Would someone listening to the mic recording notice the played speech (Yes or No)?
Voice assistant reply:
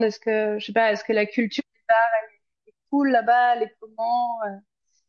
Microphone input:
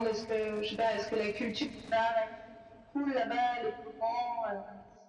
Yes